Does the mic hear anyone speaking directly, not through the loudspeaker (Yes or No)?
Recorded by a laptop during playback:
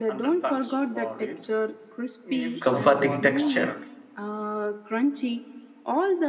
Yes